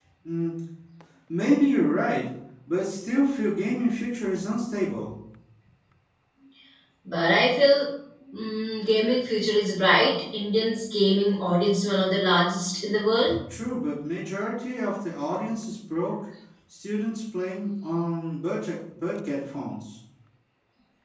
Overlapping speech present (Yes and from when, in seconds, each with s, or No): No